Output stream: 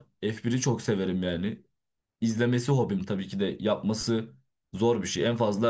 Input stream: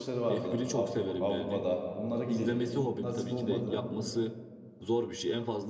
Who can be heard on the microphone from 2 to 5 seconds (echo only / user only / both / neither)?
both